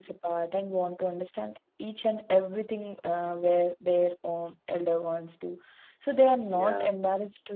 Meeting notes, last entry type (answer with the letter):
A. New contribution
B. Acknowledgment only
B